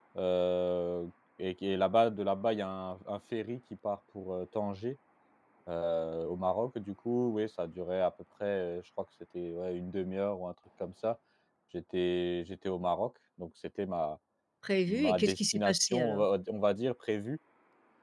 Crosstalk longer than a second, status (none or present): present